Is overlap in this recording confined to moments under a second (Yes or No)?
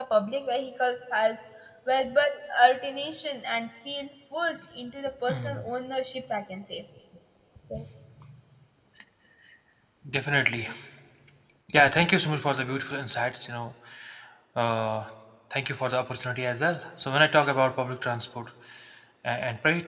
Yes